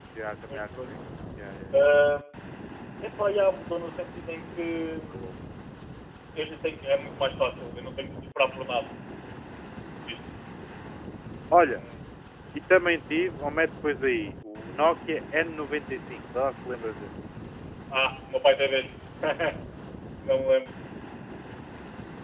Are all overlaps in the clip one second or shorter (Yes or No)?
Yes